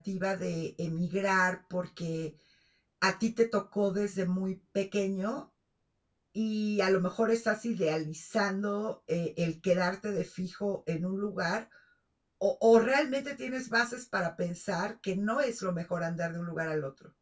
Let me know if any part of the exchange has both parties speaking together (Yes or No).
No